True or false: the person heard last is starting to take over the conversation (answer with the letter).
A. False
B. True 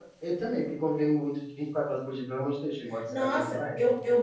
B